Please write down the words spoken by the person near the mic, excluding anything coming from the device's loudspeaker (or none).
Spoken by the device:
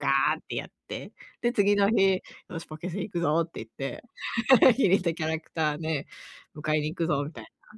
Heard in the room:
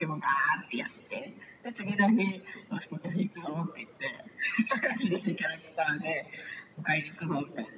none